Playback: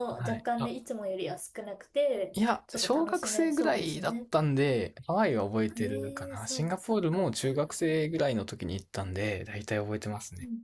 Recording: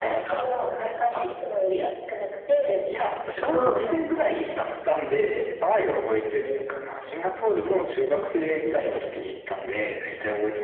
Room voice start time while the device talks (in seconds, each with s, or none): 3.5 s